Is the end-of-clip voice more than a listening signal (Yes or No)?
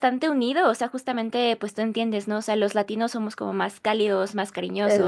No